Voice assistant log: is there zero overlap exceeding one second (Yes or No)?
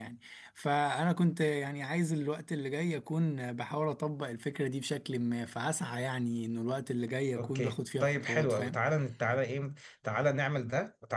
No